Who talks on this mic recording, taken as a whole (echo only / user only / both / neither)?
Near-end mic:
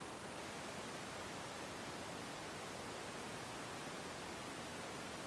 neither